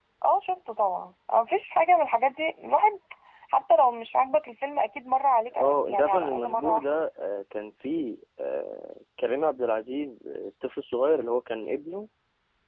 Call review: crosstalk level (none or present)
present